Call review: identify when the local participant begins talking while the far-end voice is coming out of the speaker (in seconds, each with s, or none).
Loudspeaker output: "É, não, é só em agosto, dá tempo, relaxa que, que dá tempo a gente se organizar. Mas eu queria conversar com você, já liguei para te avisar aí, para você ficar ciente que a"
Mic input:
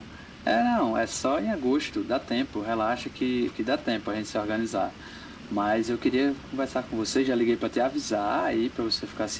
none